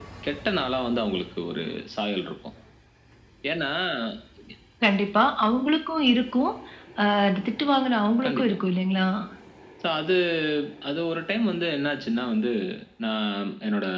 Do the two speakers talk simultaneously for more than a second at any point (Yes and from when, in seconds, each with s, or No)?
No